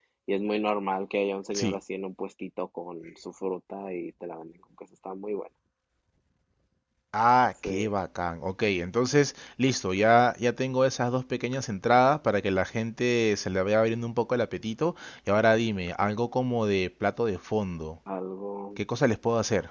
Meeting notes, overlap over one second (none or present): none